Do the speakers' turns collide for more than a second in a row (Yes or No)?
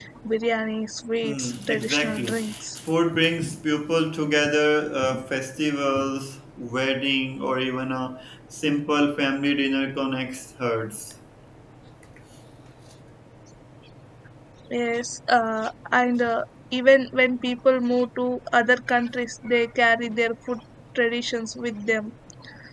Yes